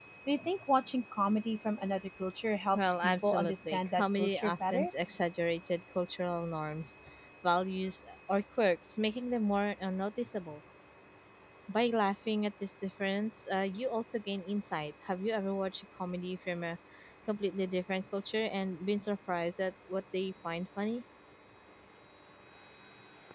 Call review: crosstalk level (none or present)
present